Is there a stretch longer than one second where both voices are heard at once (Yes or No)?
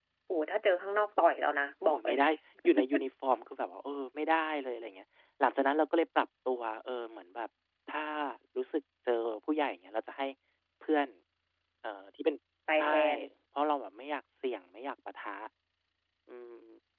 No